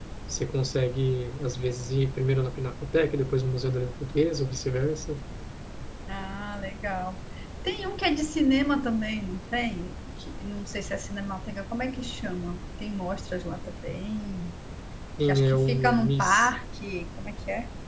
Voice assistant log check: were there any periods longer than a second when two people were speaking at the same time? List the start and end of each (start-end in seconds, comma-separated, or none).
15.3-16.5